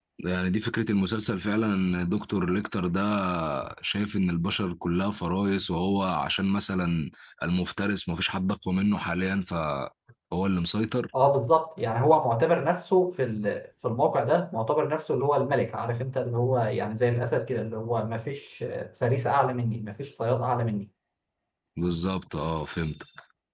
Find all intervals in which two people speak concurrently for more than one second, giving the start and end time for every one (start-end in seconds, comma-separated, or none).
none